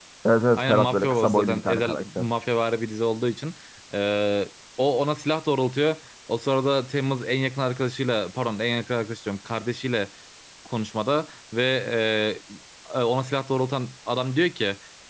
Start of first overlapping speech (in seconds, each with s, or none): 0.6 s